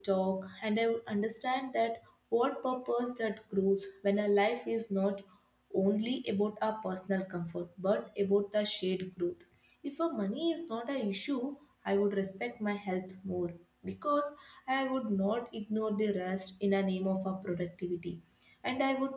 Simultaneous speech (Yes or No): No